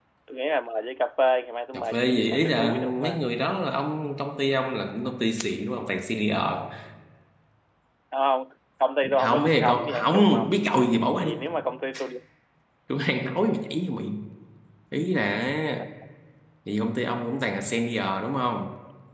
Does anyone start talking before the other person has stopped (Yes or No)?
Yes